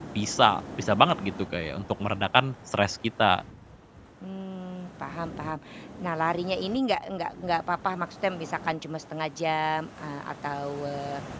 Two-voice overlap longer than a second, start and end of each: none

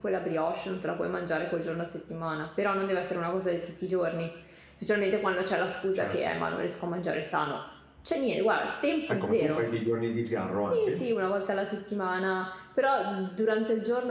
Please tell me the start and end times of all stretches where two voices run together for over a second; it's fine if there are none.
none

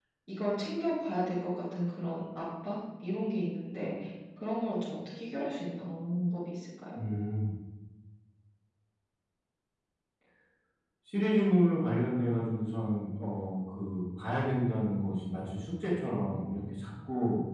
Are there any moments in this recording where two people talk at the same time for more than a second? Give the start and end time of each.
none

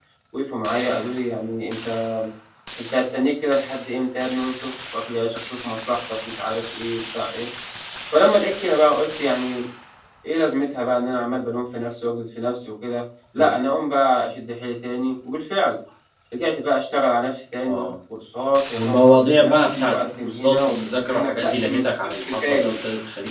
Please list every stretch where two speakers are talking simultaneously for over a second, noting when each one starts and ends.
18.7-22.7

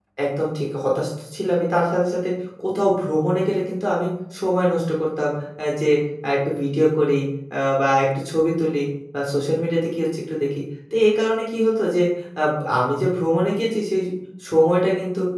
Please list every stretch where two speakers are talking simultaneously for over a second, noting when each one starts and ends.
none

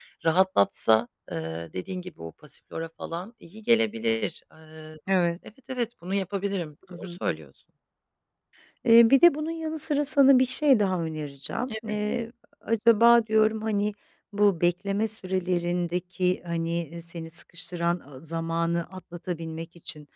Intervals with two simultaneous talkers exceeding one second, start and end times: none

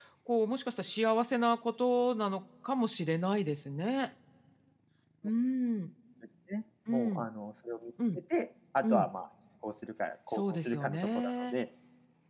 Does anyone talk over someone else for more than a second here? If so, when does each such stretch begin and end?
10.3-11.6

